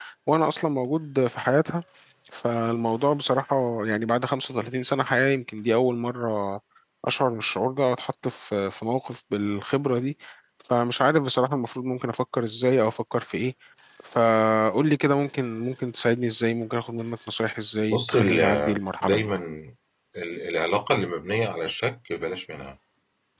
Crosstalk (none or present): present